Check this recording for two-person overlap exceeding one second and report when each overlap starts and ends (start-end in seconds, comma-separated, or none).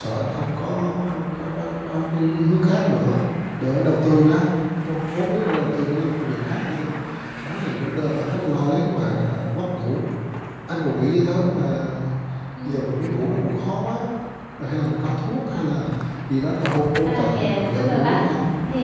17.1-18.3